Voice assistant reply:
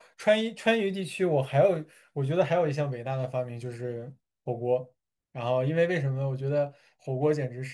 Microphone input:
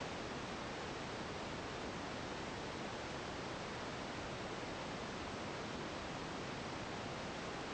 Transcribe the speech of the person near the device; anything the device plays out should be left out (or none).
none